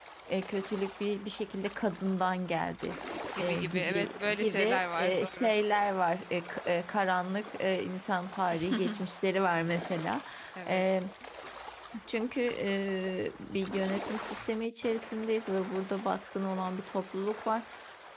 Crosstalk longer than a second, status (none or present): present